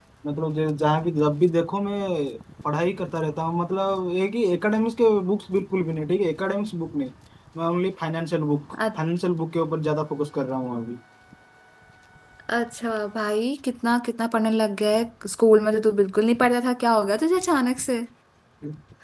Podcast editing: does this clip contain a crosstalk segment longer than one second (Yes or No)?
No